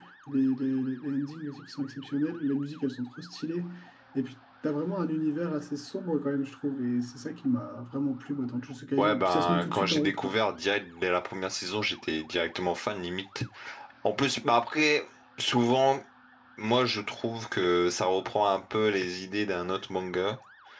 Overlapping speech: Yes, from 9.0 s

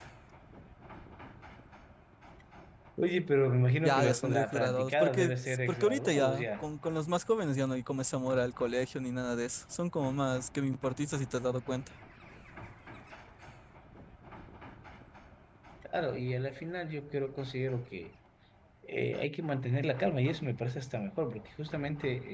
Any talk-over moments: Yes, from 3.8 s

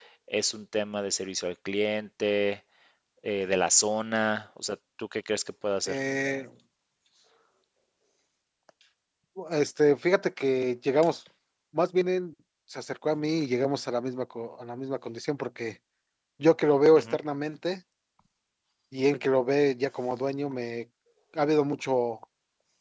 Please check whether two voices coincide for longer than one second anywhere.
No

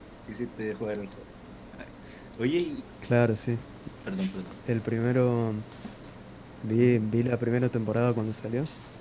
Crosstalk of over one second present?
No

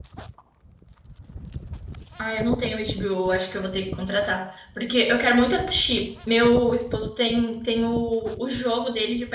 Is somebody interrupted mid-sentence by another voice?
No

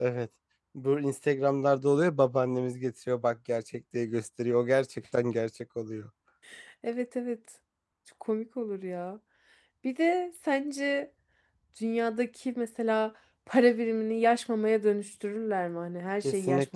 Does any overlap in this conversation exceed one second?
No

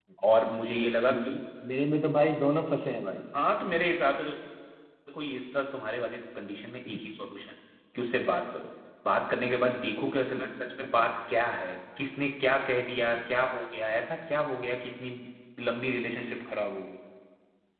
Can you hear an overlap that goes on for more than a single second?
No

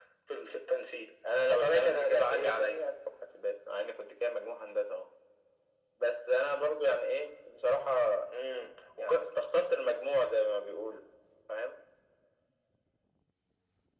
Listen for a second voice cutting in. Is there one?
Yes, from 1.5 s

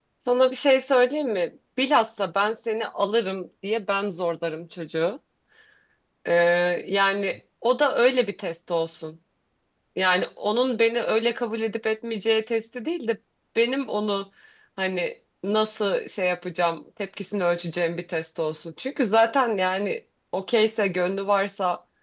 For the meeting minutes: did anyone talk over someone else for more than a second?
No

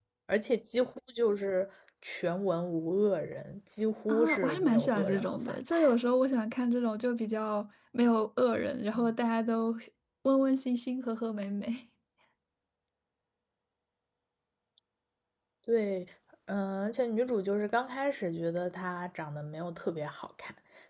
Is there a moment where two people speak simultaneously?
Yes, from 4.1 s

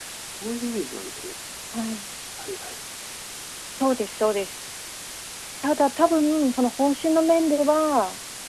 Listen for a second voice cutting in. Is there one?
No

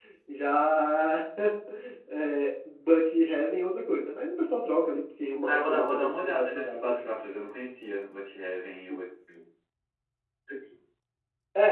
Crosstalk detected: Yes, from 5.4 s

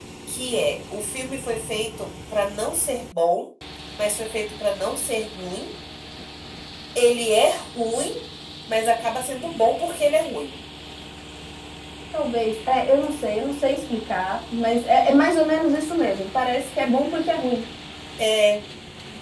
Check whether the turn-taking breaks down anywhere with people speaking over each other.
No

